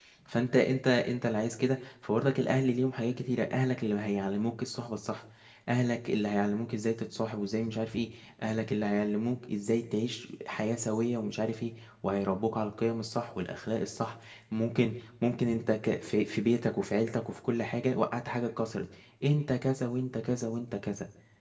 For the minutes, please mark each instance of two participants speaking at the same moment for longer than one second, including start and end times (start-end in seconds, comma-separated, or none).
none